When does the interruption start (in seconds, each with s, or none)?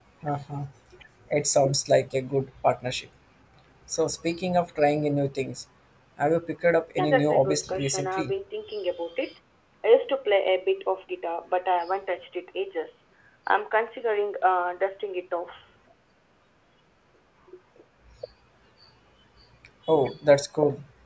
7.0 s